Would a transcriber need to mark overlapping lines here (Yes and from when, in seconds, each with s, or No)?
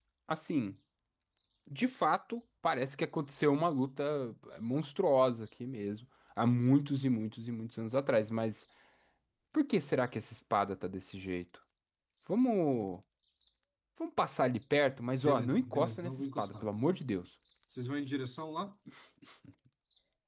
Yes, from 15.2 s